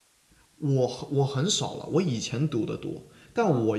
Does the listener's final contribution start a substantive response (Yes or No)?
No